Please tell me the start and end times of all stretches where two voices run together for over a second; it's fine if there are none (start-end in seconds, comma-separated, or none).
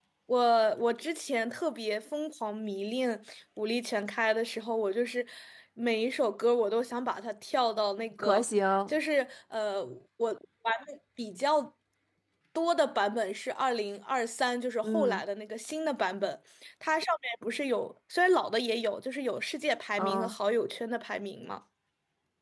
none